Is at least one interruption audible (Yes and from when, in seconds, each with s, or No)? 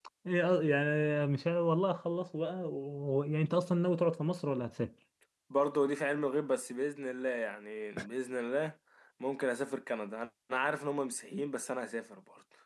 No